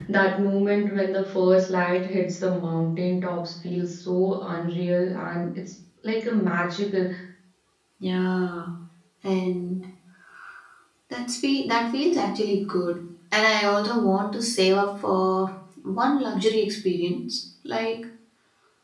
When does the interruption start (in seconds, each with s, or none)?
none